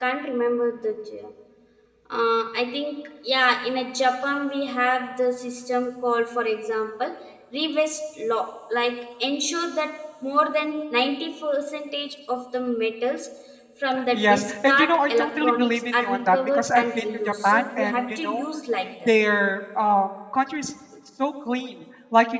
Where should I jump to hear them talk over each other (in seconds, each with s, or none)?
14.1 s